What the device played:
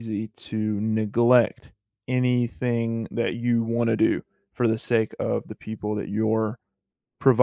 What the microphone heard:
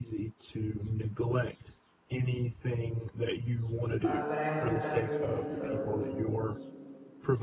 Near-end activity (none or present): present